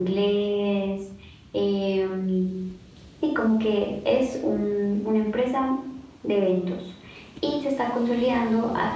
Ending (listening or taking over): listening